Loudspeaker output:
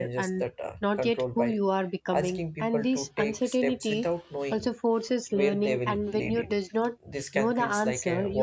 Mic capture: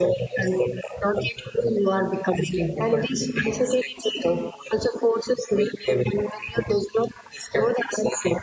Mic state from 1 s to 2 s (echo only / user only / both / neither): echo only